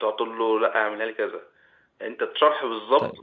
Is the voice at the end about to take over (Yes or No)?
No